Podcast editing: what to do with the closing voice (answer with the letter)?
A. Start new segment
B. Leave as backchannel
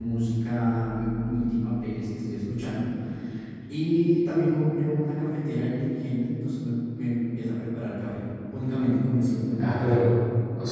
A